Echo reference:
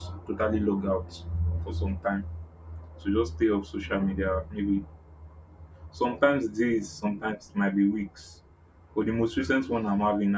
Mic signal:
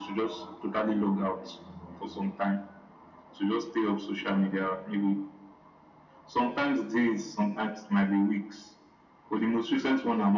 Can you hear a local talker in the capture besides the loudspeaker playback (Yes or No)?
Yes